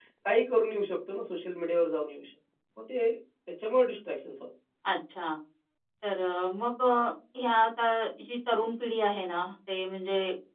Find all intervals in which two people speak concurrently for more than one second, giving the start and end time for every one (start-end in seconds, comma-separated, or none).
none